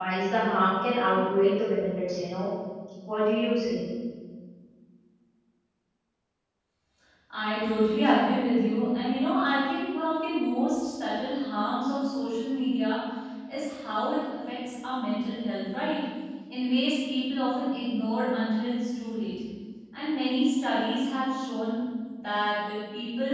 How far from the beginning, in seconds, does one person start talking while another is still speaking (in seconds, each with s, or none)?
none